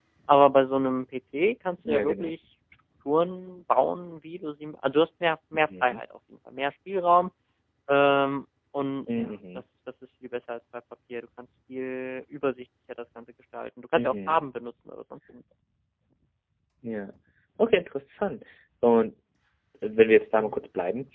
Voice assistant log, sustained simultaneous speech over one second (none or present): none